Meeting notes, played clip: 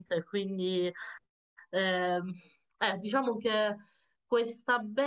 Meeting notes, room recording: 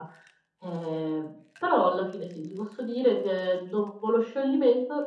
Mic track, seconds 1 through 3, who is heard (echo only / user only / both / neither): user only